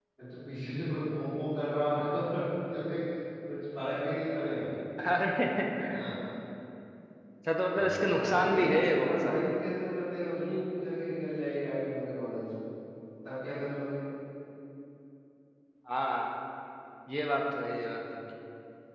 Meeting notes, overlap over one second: present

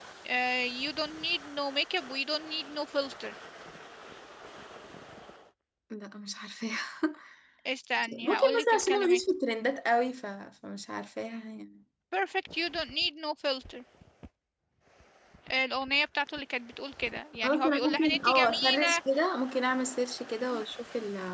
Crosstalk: present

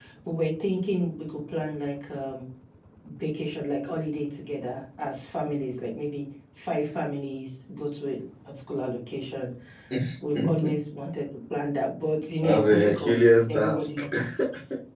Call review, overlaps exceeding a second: present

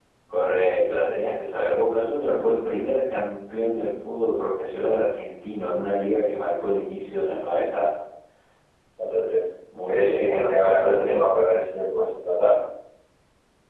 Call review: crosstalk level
present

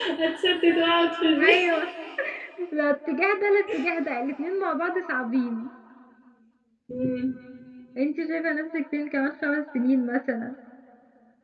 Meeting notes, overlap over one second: none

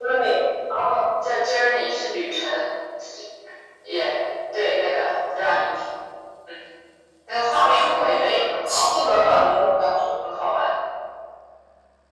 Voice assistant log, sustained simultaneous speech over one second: present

